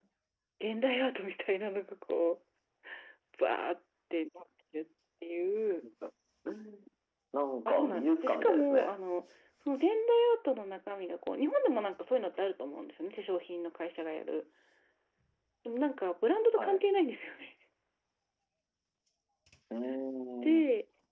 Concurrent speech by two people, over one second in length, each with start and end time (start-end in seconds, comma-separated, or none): 7.7-9.0